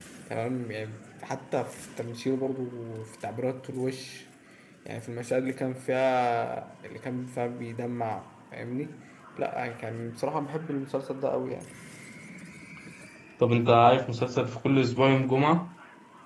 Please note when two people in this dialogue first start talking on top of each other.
none

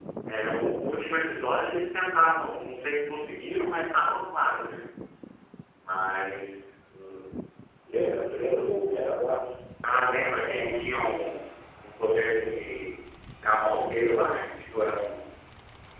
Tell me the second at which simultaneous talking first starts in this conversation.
9.8 s

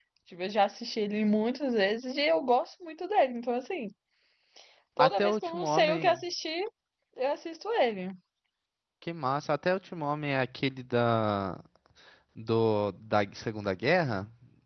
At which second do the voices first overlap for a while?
5.0 s

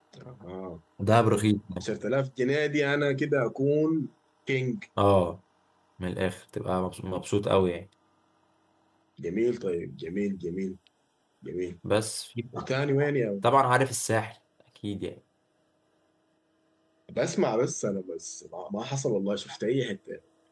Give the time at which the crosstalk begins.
none

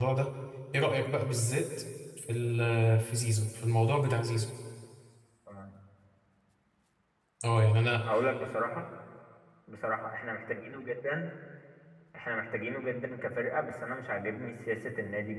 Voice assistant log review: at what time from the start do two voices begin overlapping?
none

